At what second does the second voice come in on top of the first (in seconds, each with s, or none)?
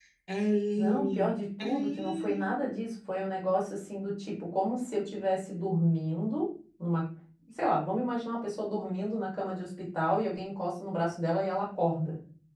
0.8 s